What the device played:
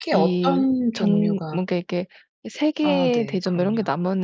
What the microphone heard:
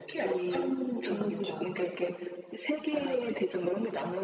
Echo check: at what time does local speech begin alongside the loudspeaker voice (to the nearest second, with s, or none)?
1 s